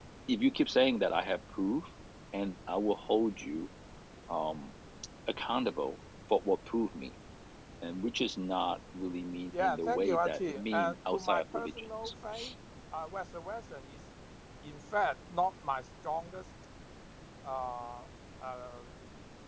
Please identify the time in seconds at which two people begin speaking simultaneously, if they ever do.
9.5 s

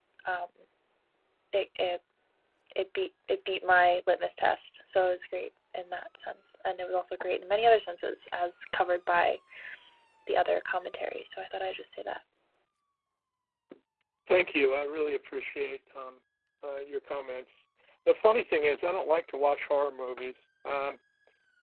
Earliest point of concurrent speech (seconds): none

